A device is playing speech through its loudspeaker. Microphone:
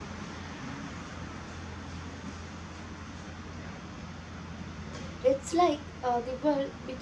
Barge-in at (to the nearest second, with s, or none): 5 s